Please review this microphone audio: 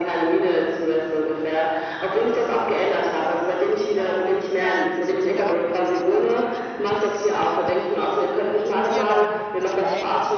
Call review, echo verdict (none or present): present